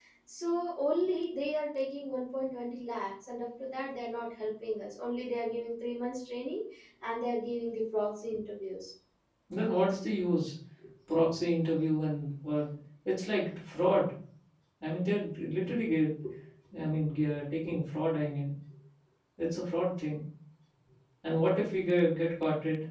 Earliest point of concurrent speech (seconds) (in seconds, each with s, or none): none